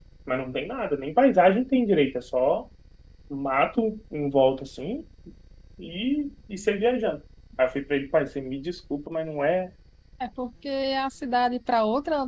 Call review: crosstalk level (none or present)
none